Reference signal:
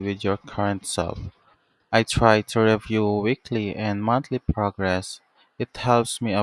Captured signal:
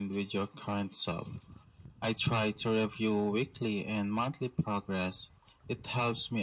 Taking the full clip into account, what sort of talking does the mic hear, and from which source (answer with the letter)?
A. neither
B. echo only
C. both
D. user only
B